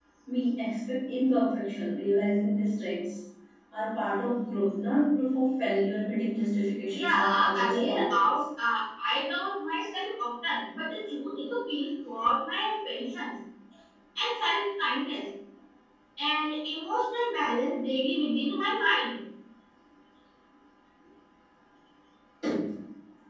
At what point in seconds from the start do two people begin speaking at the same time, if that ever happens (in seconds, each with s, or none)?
6.9 s